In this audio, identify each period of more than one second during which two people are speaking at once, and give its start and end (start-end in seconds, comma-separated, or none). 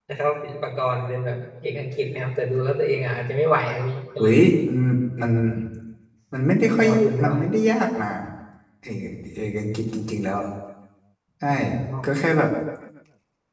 none